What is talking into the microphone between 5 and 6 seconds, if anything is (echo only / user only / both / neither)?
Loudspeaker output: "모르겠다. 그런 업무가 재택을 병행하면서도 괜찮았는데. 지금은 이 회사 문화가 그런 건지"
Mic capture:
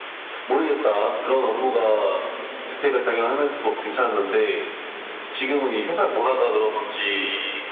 echo only